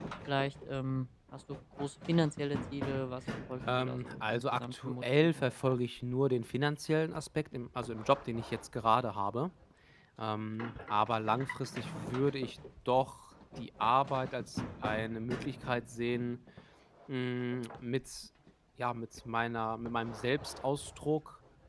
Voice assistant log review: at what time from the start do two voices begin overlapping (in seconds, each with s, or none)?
3.7 s